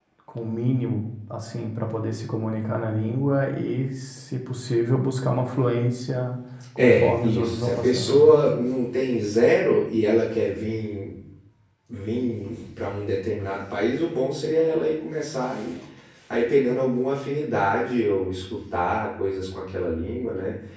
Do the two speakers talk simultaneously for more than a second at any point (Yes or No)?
Yes